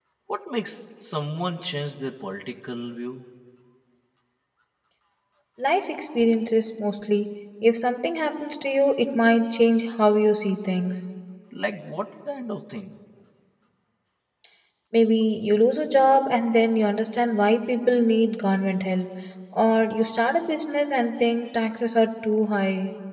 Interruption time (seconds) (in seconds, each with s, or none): none